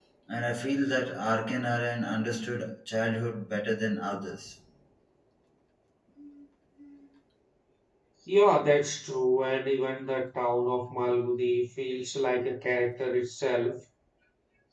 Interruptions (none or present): none